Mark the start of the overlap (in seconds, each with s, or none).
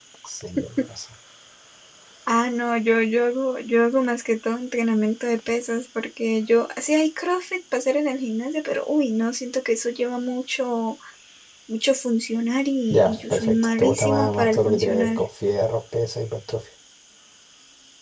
12.9 s